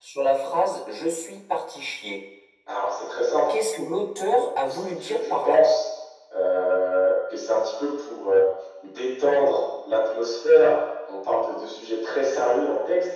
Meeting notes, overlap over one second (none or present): present